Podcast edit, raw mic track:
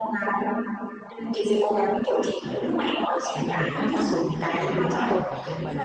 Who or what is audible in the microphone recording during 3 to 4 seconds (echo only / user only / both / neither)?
both